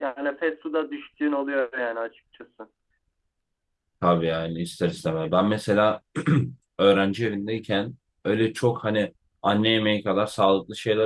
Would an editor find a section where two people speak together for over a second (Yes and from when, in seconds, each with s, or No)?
No